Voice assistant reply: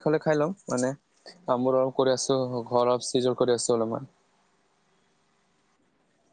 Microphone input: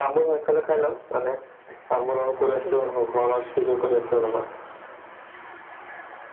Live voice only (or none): তুমি কি কোৱা